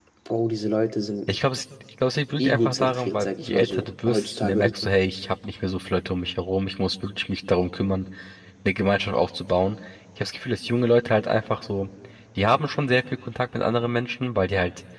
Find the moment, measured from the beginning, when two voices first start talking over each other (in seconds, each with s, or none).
2.4 s